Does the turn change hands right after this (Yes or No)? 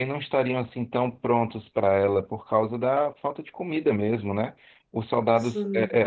No